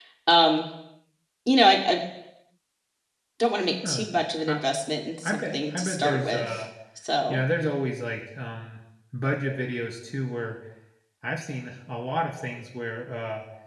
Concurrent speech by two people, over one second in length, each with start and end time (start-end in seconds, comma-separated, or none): 5.2-6.6